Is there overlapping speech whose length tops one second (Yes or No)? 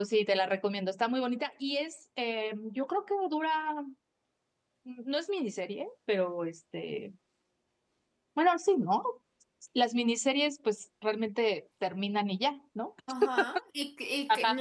No